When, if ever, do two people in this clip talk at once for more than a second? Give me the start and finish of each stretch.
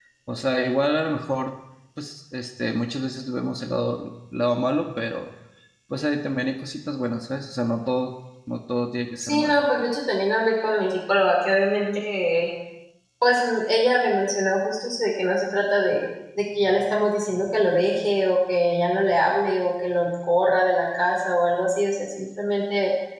none

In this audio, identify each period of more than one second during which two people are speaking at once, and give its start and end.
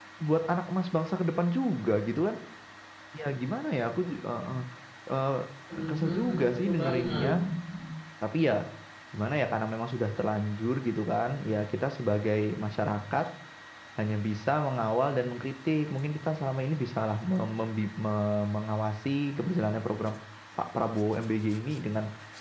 5.8-7.3

